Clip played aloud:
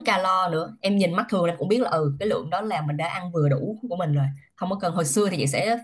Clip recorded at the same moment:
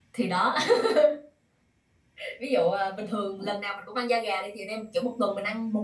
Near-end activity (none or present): present